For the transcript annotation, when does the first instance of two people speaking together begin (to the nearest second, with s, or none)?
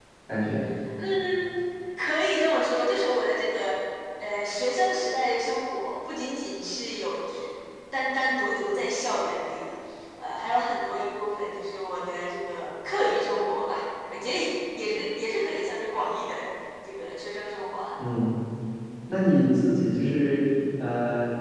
none